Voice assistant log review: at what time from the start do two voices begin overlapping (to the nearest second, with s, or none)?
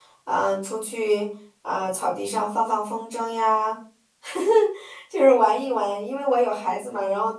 none